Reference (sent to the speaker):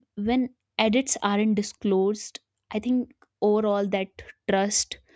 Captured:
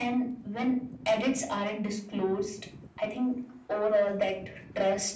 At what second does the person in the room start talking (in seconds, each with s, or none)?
none